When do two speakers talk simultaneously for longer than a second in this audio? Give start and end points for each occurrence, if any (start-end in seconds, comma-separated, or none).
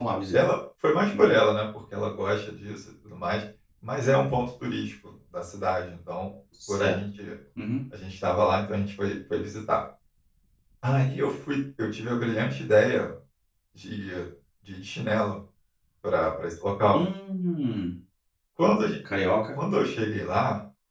none